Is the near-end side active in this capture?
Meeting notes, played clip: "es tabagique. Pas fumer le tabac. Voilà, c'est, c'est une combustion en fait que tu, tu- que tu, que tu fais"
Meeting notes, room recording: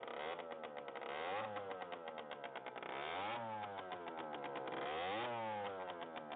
No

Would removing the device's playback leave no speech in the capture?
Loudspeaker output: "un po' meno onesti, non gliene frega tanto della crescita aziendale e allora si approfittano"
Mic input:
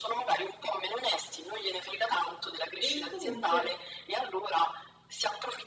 No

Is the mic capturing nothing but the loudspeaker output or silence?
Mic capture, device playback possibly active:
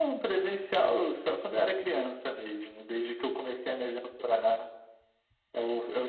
Yes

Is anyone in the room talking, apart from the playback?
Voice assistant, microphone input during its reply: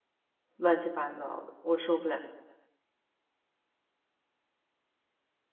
Yes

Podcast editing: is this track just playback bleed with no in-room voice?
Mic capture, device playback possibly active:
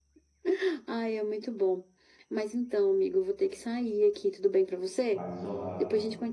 No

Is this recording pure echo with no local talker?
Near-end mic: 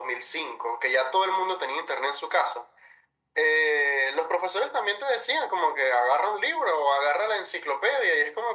Yes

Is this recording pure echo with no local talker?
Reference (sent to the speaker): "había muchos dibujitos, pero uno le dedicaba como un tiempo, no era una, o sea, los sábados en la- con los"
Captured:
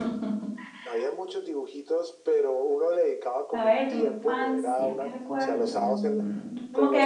No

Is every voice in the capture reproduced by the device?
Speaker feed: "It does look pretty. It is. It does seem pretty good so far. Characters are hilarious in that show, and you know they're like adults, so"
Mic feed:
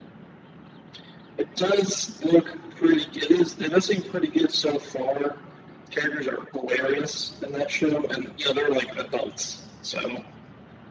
Yes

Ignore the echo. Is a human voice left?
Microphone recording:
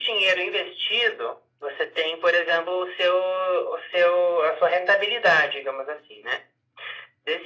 No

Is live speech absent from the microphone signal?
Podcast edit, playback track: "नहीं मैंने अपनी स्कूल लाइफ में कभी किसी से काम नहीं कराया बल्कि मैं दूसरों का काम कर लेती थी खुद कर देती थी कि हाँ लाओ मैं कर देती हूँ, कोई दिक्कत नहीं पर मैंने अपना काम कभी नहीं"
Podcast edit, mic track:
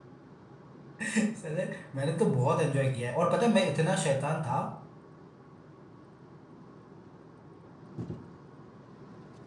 No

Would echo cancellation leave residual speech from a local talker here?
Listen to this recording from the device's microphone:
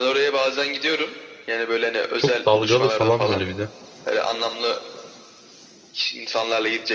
Yes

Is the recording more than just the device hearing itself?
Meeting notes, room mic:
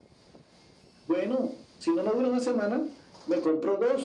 No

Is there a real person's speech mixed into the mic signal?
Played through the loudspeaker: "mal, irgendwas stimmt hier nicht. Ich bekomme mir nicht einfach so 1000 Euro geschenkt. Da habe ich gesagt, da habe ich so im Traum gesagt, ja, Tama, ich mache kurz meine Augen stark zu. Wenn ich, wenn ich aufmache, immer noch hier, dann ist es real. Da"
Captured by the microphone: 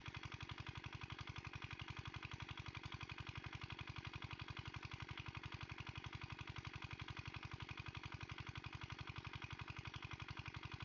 No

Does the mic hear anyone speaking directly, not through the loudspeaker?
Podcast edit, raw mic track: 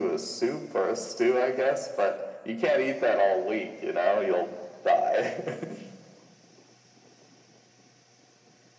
No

